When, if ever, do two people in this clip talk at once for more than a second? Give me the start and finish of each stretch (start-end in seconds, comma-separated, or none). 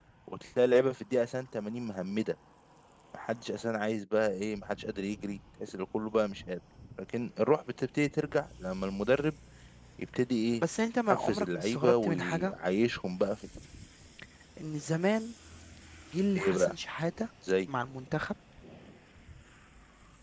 11.1-12.5